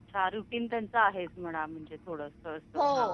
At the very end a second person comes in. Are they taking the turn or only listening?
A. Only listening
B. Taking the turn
B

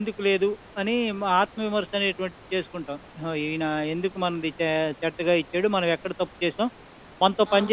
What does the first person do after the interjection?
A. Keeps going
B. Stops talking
B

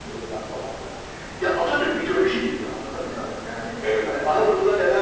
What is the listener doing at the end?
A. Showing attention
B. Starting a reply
A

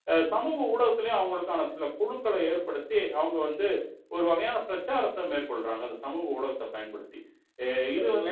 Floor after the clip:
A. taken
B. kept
B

